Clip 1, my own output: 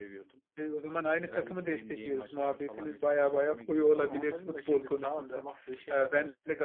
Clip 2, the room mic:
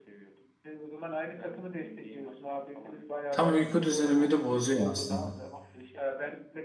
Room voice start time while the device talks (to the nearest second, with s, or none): 3 s